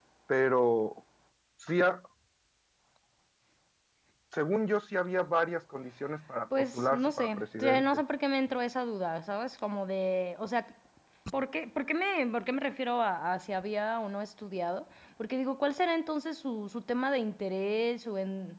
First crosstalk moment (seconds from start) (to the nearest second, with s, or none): 7 s